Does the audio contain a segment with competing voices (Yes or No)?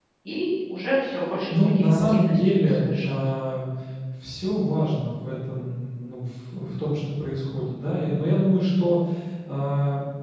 Yes